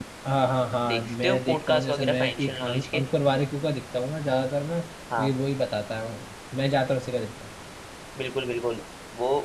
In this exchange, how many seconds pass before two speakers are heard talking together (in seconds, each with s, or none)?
0.9 s